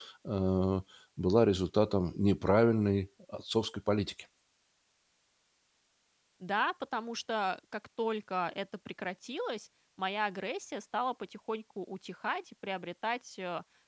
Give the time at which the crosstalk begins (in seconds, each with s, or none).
none